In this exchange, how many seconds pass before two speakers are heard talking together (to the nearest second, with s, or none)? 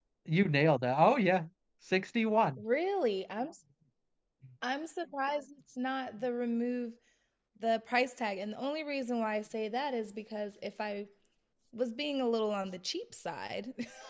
none